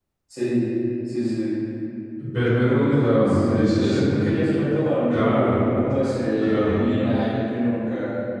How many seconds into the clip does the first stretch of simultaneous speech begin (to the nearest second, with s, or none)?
3 s